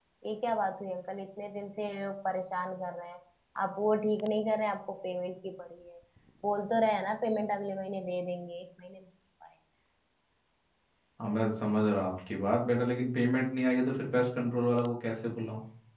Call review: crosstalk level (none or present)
none